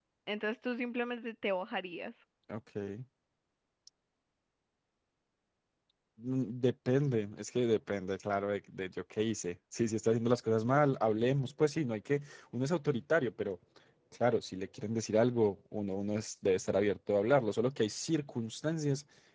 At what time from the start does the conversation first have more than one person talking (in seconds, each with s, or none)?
none